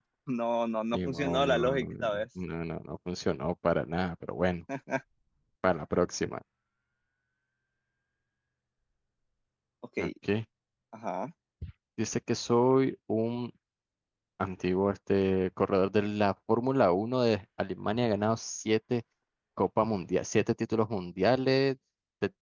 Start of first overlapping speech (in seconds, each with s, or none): 0.9 s